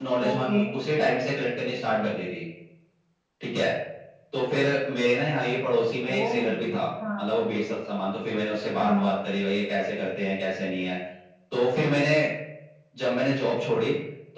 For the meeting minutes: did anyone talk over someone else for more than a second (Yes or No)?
No